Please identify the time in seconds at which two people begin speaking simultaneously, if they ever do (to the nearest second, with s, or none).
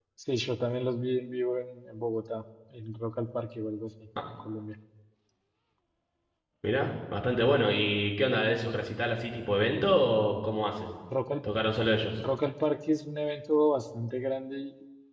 none